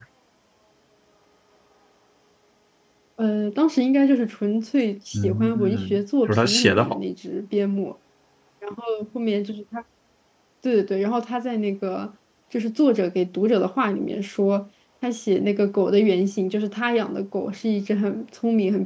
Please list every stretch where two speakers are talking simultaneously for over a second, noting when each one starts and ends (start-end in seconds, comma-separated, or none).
5.1-7.0